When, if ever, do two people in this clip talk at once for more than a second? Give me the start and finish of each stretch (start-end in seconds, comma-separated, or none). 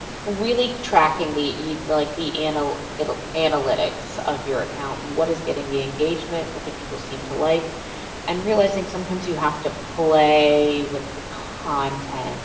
none